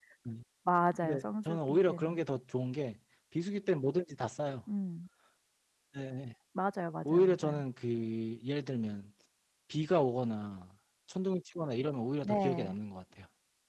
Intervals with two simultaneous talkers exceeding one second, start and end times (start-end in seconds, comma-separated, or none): 1.0-2.2